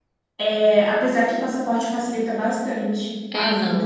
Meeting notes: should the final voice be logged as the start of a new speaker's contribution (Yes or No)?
Yes